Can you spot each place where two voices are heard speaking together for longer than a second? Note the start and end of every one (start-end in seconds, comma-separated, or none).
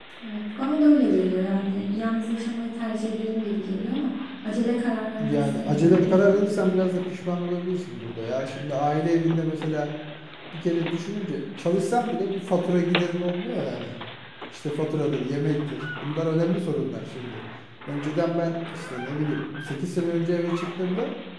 5.2-7.1